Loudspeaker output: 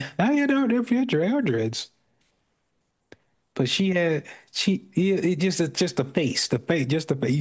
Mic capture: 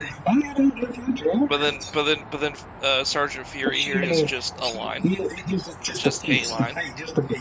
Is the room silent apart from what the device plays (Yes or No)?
No